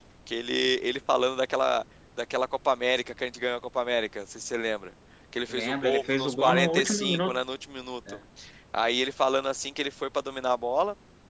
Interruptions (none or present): present